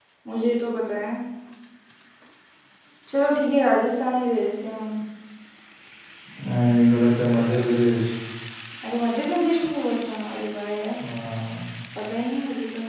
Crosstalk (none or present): none